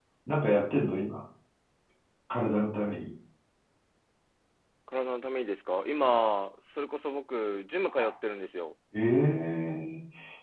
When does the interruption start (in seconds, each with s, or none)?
none